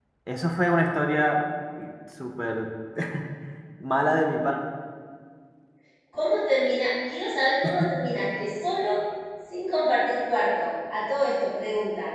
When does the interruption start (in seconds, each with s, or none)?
none